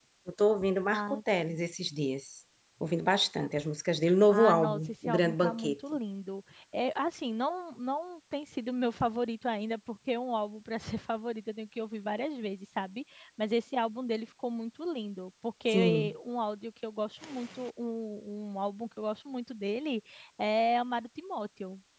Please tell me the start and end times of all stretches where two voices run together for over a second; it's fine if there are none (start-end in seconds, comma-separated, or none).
4.3-5.8